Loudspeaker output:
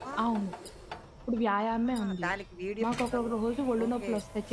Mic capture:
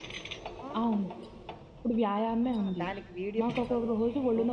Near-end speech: none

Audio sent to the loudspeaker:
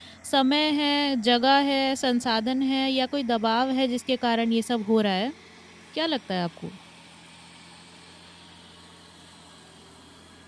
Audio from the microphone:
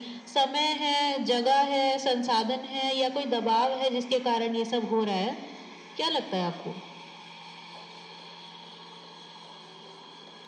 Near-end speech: none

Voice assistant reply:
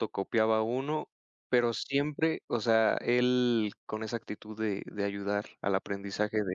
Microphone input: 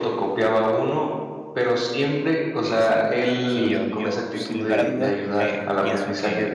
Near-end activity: present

